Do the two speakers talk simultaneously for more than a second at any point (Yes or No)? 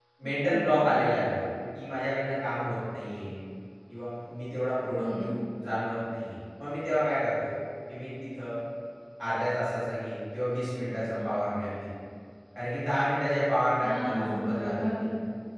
Yes